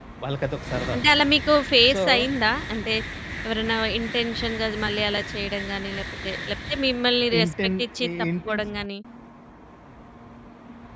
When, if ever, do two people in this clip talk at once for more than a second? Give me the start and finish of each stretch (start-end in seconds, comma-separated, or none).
7.4-8.6